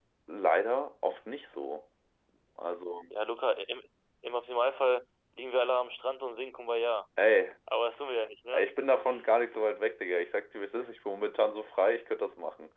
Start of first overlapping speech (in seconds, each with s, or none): none